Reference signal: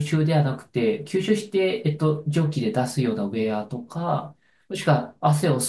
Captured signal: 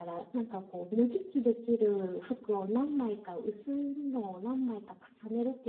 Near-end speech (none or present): present